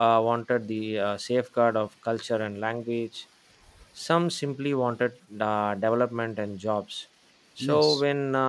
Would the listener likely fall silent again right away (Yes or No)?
Yes